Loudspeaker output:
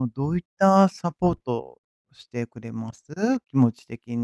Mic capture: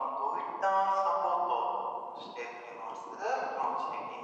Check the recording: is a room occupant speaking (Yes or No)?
No